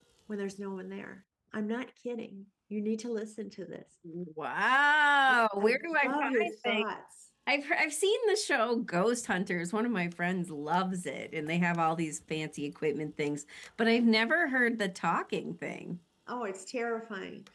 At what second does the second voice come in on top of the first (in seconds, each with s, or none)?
5.3 s